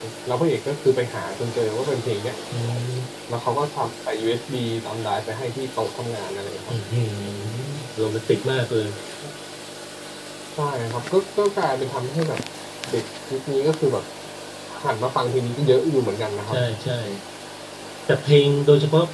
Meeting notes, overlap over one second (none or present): none